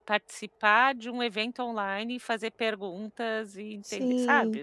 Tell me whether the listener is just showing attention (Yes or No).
No